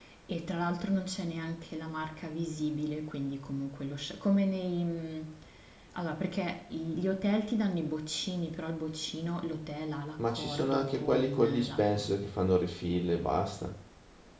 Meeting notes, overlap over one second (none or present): present